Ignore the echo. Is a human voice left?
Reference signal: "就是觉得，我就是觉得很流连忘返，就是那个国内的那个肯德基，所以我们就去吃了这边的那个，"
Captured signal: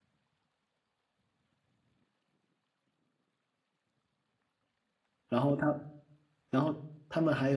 Yes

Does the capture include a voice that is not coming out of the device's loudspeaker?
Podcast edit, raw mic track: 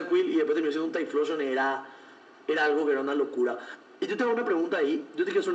No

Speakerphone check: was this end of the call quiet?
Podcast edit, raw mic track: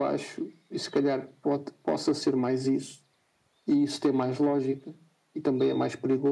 Yes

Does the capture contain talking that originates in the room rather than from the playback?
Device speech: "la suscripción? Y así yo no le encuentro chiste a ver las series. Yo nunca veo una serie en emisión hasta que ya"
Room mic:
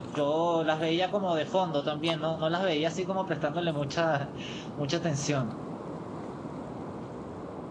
Yes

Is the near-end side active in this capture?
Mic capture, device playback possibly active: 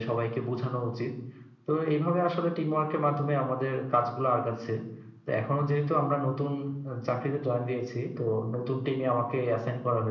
No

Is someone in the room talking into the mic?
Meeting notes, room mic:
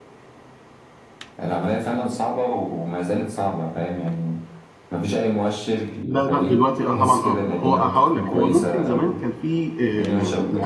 Yes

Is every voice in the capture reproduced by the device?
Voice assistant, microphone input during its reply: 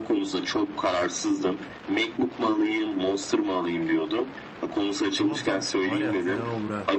No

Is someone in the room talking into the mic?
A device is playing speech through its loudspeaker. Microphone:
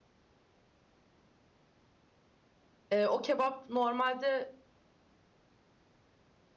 Yes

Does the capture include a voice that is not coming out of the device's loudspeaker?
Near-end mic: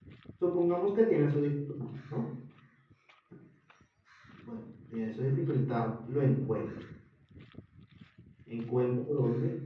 Yes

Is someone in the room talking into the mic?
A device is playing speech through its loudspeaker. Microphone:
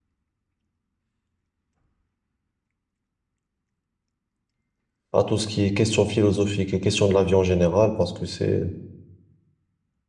Yes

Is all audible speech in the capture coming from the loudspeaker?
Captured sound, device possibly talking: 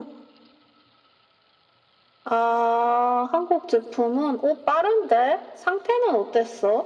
Yes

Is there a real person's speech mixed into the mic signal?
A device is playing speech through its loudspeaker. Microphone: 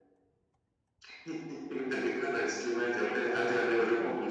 Yes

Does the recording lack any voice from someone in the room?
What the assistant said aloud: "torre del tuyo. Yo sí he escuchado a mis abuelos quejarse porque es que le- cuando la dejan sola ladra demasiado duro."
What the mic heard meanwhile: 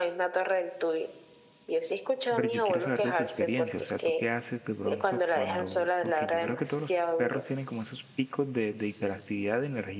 No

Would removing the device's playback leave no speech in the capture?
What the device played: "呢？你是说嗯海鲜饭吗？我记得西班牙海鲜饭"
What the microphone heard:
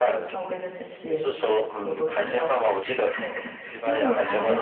No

